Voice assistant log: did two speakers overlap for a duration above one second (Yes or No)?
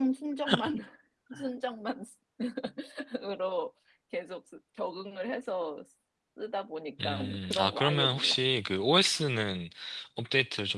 Yes